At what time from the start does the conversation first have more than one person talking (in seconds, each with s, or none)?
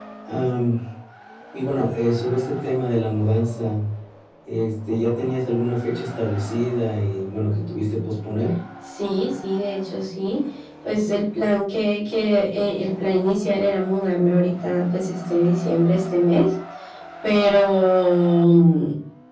none